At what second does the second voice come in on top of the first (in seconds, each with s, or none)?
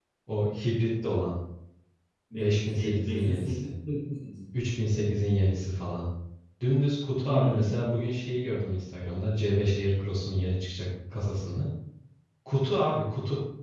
2.3 s